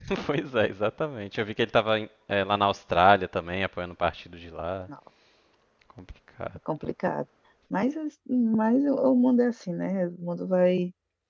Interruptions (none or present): none